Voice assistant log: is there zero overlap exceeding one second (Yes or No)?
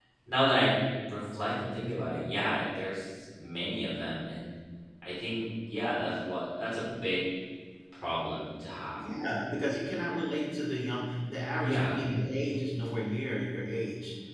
Yes